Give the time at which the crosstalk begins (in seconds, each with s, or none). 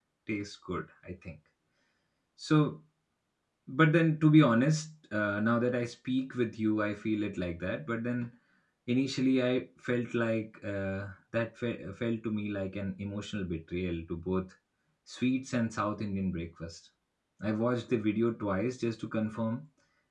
none